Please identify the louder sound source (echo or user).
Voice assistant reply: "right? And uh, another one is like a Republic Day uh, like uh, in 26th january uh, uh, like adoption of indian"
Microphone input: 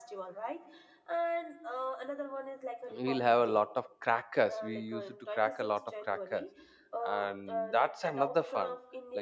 user